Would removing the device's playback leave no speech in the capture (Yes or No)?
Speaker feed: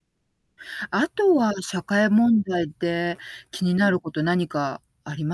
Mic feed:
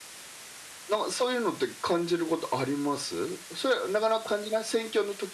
No